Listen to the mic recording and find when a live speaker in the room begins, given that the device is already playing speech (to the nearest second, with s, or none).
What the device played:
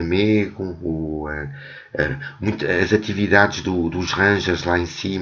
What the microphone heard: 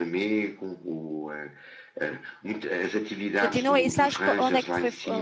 3 s